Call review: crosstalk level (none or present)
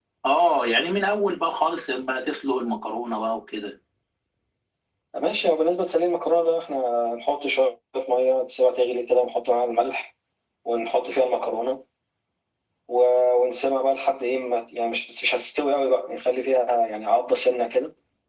none